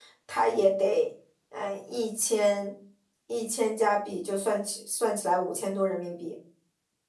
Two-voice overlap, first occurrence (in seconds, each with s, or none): none